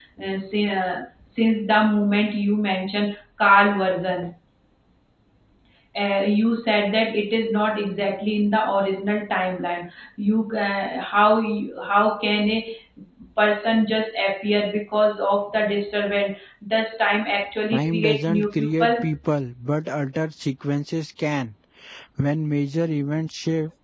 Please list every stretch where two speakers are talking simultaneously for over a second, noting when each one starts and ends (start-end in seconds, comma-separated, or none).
17.7-19.1